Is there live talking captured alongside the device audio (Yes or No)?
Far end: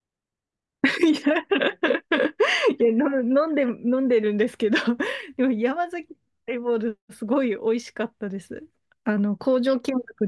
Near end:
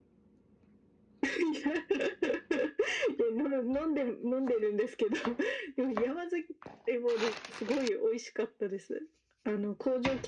No